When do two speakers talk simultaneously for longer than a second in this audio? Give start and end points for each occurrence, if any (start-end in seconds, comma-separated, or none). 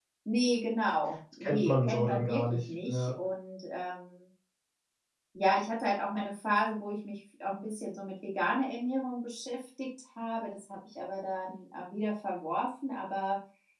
1.4-3.1